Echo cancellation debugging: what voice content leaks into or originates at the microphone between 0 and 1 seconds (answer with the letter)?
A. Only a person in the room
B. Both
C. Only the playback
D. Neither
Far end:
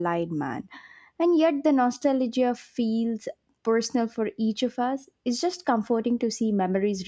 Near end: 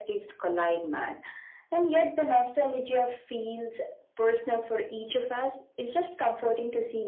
C